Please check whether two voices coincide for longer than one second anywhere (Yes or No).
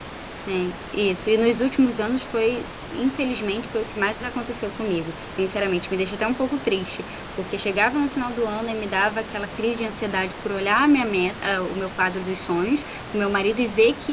No